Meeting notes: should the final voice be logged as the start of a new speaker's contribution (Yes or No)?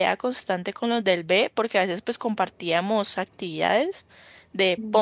No